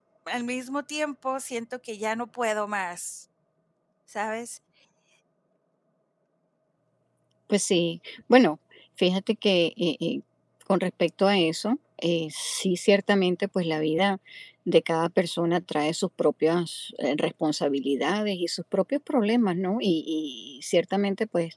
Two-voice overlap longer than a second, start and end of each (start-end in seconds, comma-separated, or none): none